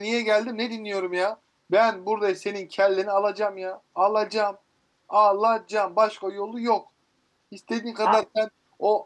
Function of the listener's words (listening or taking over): listening